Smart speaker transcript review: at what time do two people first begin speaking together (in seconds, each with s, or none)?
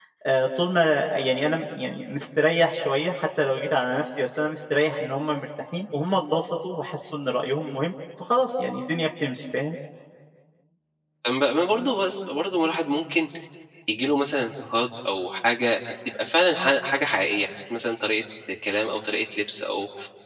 none